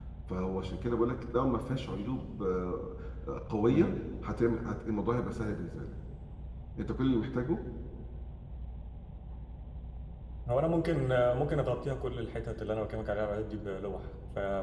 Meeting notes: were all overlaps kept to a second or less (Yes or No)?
Yes